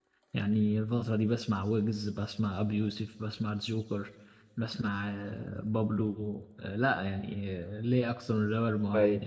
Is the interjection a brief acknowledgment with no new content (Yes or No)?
No